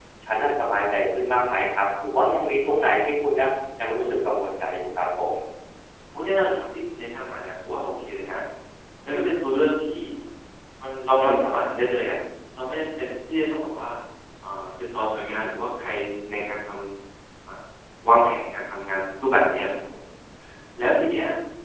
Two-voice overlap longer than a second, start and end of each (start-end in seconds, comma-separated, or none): none